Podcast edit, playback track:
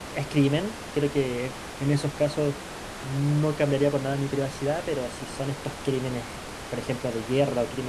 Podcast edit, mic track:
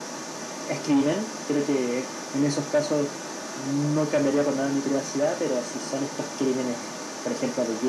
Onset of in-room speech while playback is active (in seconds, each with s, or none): none